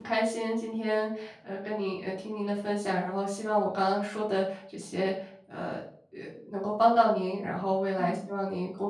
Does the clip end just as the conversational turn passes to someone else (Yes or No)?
No